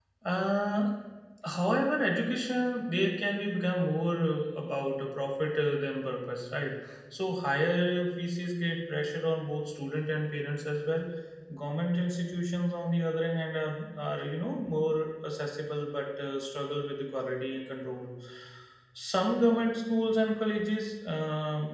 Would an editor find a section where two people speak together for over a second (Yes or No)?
No